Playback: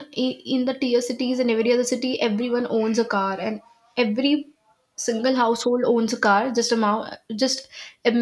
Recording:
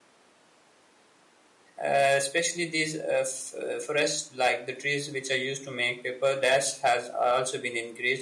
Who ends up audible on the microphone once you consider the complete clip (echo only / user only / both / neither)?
user only